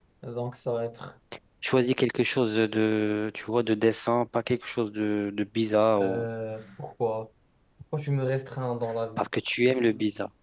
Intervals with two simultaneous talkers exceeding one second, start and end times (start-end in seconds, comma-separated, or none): none